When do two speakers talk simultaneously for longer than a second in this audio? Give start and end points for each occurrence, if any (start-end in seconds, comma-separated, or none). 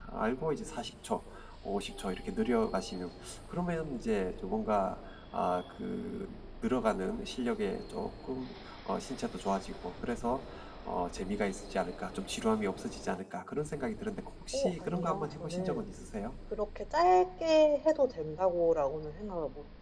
14.5-15.8